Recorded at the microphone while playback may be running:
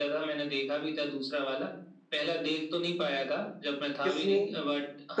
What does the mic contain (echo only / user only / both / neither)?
both